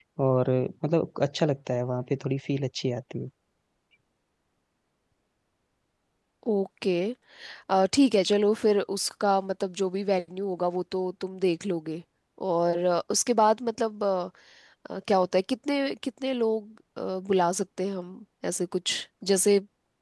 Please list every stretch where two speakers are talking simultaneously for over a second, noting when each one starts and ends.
none

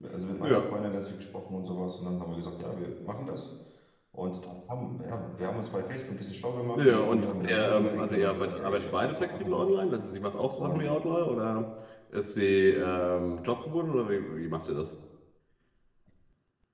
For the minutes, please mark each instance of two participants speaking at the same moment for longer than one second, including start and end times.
6.8-9.6

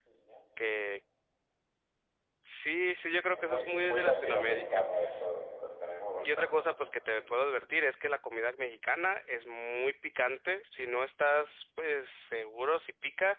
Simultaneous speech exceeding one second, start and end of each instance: 3.3-4.8

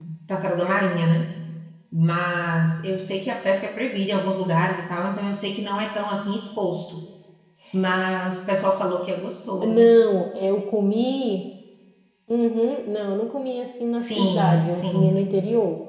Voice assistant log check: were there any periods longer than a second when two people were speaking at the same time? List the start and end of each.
14.0-15.3

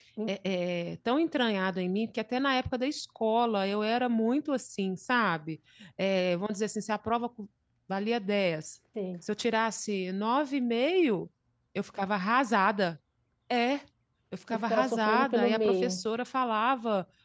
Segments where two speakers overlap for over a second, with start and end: 14.5-16.0

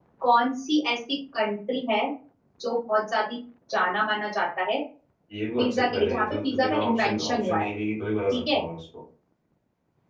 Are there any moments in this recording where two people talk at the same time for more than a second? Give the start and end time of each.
5.6-7.6

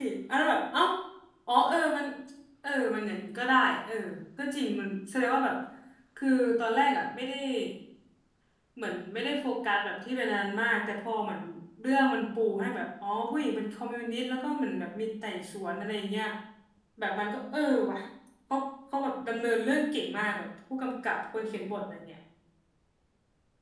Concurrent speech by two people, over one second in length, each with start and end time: none

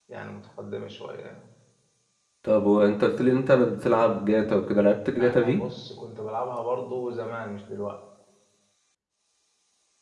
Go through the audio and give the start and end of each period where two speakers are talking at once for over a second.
none

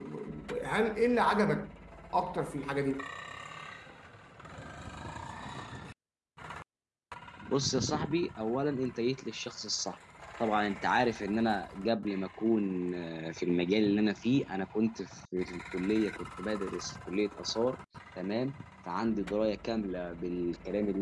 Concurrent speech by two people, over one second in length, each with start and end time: none

